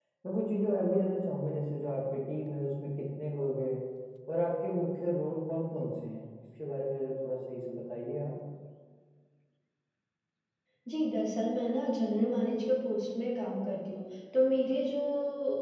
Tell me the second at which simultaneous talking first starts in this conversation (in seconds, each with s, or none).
none